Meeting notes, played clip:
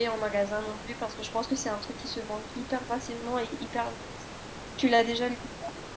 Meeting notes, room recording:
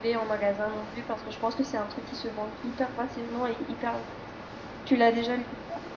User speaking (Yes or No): No